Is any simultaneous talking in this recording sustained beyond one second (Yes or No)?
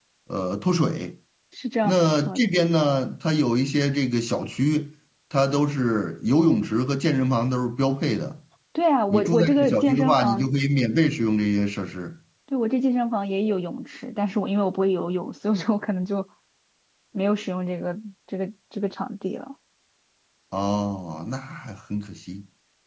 Yes